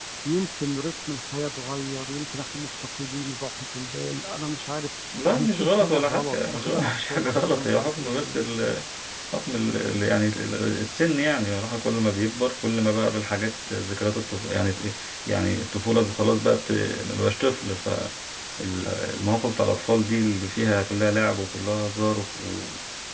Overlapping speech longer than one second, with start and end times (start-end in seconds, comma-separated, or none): 5.3-8.4